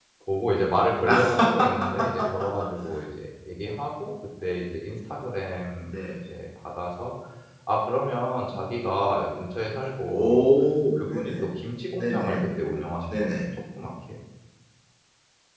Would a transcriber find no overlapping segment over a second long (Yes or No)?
Yes